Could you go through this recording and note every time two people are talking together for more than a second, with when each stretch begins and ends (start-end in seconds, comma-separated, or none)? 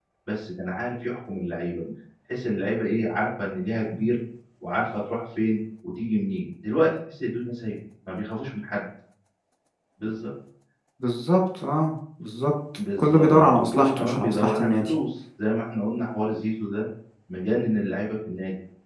13.0-14.9